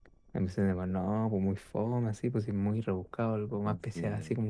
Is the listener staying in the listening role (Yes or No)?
Yes